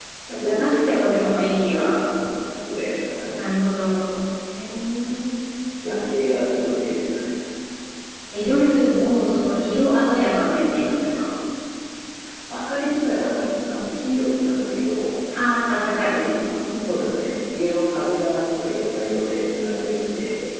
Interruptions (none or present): present